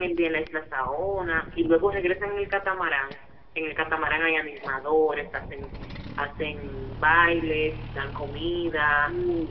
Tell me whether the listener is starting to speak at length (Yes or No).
No